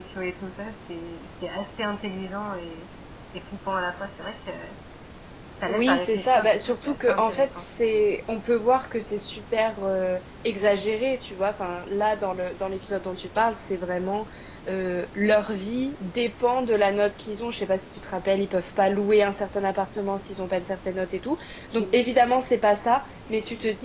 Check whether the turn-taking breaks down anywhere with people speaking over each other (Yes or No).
Yes